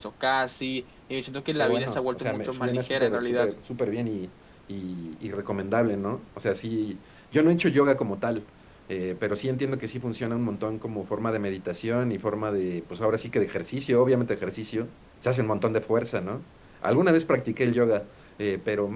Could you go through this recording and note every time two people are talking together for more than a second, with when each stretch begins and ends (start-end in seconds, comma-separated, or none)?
1.6-3.5